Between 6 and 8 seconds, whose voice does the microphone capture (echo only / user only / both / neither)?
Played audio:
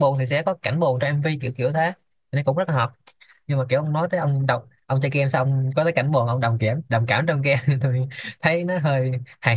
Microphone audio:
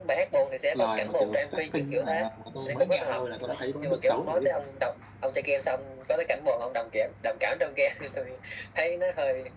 echo only